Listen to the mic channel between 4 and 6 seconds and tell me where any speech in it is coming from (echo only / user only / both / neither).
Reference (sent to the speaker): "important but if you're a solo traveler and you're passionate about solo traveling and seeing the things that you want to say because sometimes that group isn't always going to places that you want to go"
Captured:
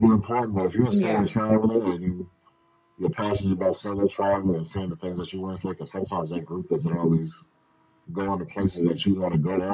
echo only